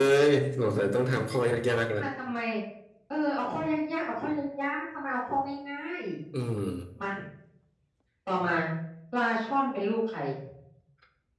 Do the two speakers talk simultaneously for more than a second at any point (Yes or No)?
No